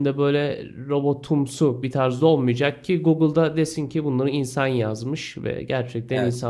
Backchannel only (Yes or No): Yes